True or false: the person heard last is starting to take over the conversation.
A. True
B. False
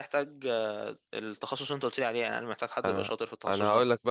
A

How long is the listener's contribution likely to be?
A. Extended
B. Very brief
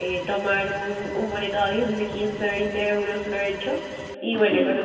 B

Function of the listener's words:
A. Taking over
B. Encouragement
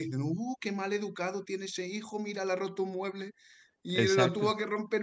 B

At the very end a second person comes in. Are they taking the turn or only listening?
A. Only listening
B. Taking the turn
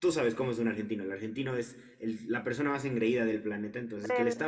A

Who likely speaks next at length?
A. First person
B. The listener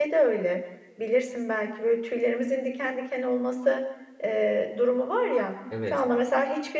A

